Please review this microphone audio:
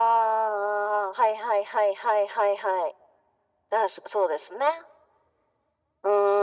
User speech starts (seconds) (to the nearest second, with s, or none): none